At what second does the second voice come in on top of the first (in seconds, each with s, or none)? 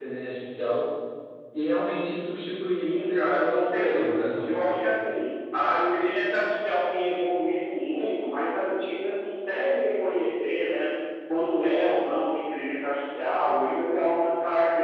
2.8 s